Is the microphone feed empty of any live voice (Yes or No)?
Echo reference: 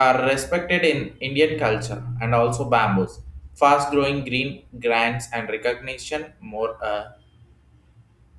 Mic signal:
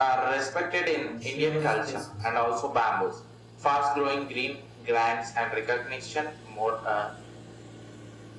No